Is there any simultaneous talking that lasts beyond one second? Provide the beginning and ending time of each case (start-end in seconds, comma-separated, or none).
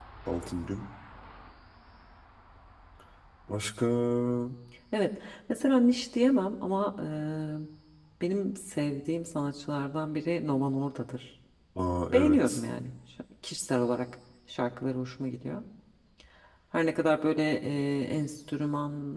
none